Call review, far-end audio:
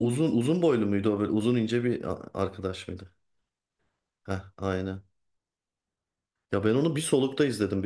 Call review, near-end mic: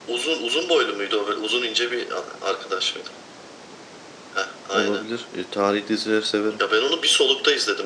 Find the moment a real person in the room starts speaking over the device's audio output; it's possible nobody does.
5 s

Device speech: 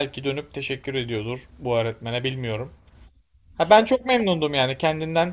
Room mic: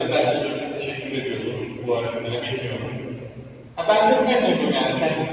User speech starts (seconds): none

